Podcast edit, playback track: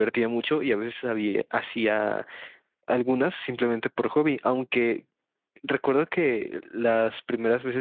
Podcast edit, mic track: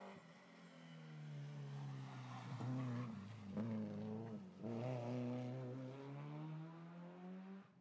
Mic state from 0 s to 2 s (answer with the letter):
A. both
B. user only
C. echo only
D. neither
D